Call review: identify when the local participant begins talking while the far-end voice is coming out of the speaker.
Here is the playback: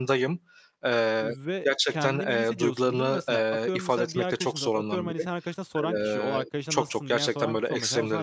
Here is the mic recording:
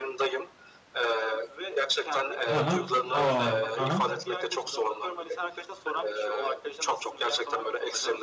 2 s

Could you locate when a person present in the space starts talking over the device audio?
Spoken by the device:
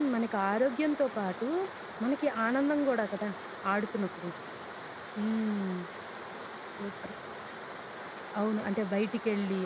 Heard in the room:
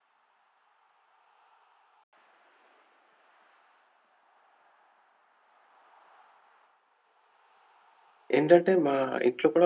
8 s

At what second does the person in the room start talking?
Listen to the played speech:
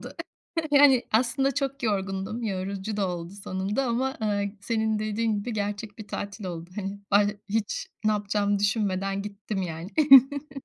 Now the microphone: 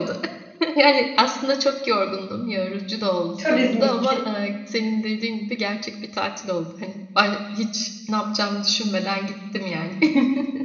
3 s

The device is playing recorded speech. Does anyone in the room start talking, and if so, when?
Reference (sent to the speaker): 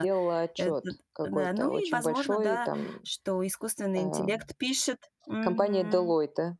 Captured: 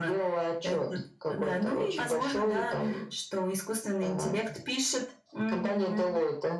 none

